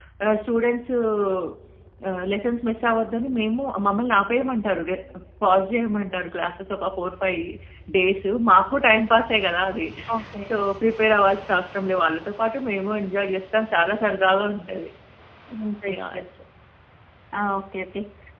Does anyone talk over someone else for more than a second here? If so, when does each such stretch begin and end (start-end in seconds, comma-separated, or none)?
none